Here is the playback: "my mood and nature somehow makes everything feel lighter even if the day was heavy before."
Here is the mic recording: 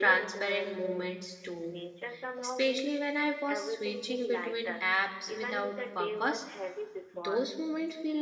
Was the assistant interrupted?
Yes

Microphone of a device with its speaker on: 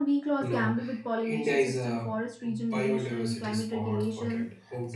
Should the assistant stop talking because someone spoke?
Yes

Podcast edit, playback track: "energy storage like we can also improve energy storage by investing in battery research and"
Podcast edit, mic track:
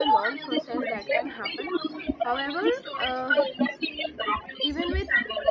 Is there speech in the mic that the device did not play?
Yes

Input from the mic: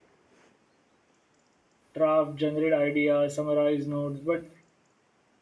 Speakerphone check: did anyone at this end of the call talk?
Yes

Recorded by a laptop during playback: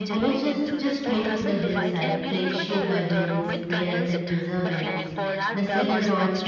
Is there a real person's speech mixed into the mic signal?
Yes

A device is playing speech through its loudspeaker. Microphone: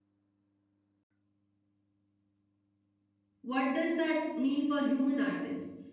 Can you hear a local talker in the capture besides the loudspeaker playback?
Yes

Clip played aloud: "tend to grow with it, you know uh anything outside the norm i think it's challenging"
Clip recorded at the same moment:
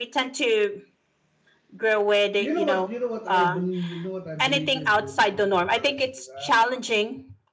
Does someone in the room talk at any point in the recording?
Yes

